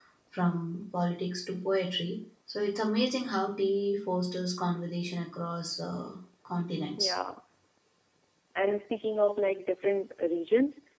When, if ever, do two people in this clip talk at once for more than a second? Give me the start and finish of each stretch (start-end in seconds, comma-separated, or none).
none